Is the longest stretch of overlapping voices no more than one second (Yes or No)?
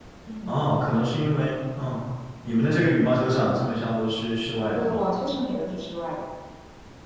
Yes